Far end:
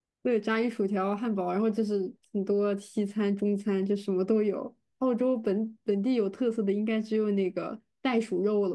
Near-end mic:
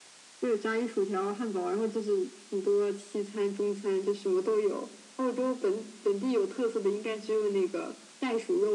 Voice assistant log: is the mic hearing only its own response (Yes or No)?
Yes